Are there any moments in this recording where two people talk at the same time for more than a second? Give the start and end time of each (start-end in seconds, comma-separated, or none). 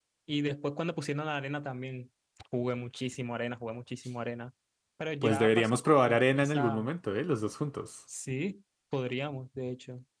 5.2-6.9